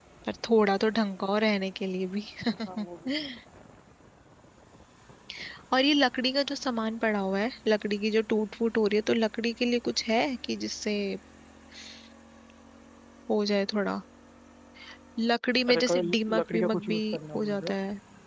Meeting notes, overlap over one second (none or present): present